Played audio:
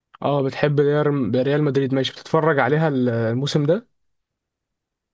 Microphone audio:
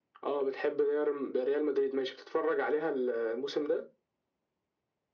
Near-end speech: none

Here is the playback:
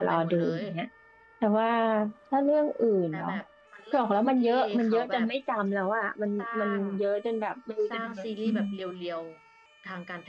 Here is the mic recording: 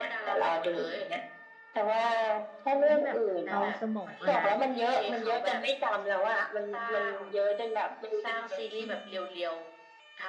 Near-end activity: present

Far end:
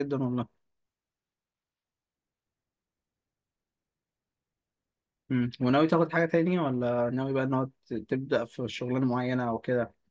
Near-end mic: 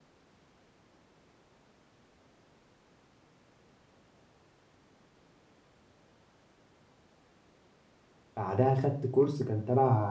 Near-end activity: present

